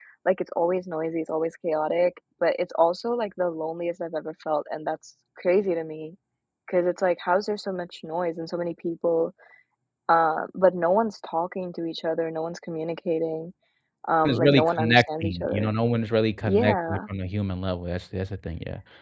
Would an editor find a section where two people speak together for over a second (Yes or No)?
Yes